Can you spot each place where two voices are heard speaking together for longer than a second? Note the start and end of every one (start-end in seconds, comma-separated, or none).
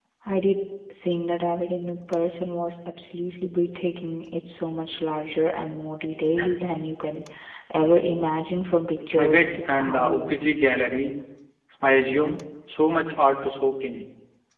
9.1-10.4